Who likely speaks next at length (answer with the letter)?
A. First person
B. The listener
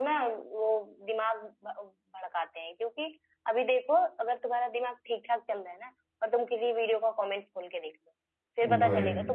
A